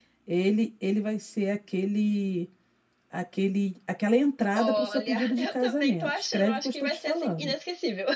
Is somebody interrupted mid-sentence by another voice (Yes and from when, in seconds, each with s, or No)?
Yes, from 4.5 s